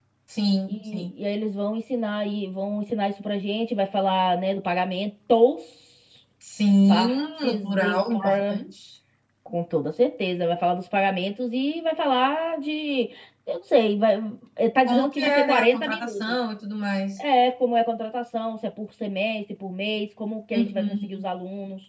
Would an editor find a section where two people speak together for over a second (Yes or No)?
Yes